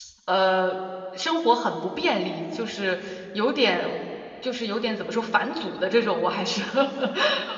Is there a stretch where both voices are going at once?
No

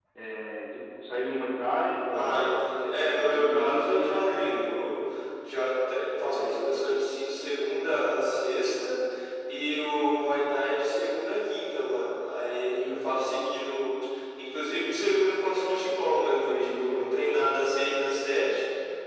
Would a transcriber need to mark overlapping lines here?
Yes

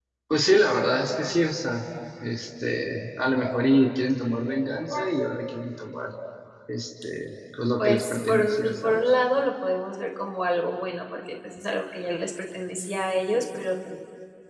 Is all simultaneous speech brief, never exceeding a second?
No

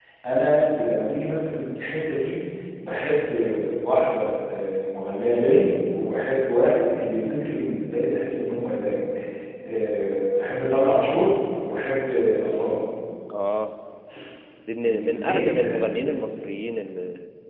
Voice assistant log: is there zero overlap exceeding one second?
No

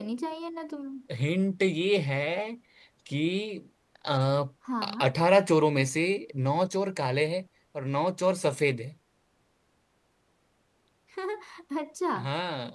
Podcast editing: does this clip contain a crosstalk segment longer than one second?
No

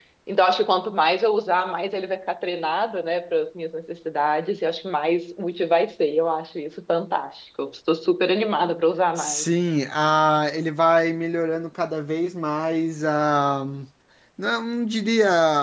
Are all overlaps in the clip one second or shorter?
Yes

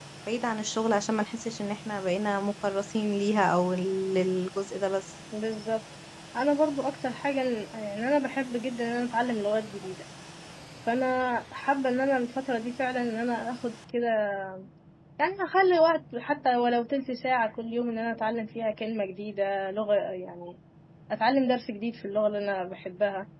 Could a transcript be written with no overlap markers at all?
Yes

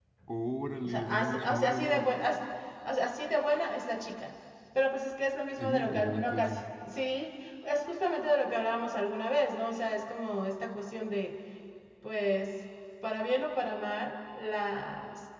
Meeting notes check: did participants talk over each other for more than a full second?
Yes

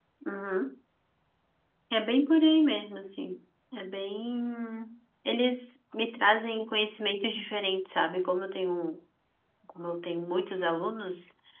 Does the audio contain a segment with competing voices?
No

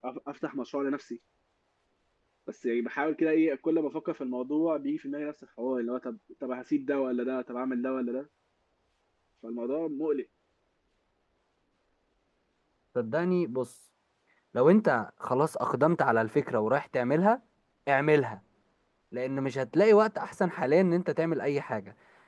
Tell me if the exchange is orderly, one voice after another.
Yes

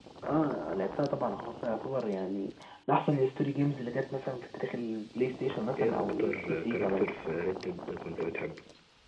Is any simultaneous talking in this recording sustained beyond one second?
Yes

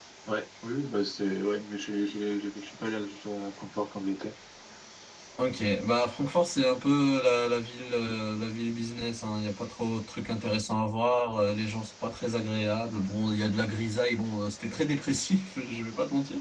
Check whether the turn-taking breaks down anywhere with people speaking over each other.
No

